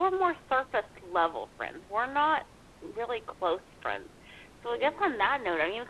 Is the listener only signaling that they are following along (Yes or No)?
Yes